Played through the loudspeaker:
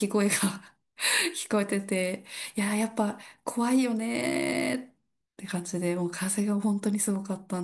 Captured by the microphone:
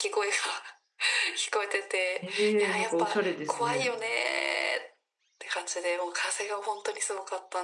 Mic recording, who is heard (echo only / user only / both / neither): both